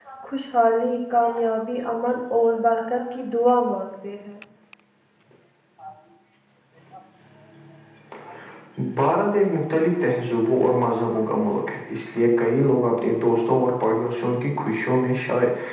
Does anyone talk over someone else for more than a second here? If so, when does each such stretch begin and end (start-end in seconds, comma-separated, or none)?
none